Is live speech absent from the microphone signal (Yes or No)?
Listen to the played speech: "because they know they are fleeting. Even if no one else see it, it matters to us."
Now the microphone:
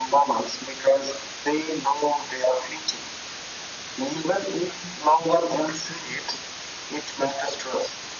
Yes